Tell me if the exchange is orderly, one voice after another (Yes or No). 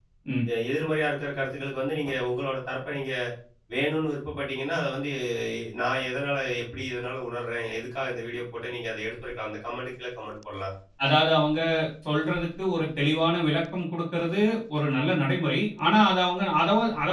Yes